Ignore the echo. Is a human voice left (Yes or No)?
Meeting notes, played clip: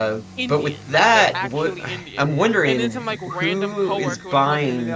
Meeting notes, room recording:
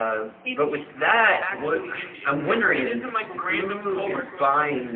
No